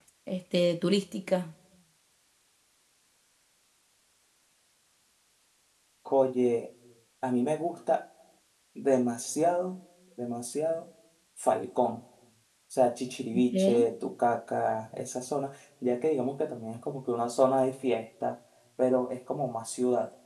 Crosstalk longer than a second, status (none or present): none